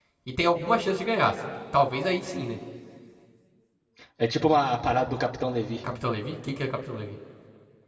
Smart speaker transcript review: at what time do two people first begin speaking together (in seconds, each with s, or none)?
none